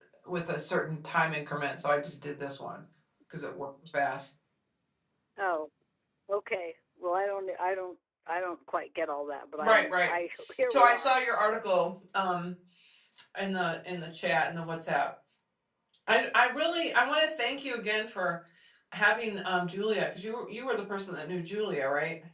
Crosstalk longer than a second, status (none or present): none